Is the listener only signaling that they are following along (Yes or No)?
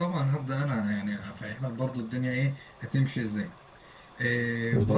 Yes